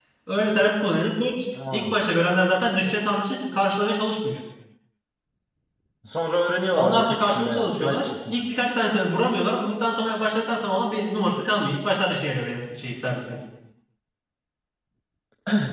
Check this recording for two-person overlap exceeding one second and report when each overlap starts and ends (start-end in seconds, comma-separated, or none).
6.7-8.4